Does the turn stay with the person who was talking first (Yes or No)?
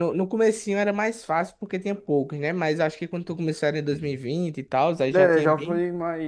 No